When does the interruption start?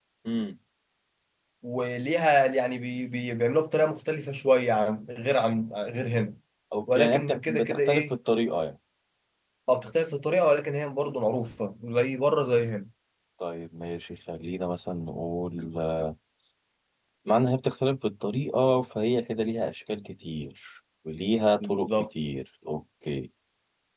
7 s

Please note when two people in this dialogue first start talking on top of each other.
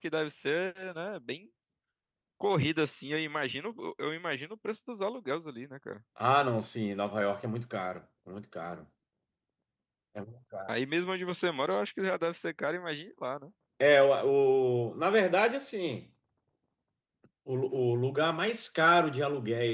none

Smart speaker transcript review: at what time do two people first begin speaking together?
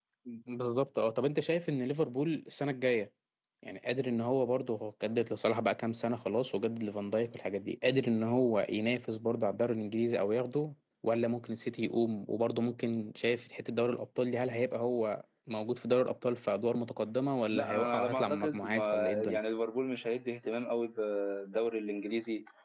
18 s

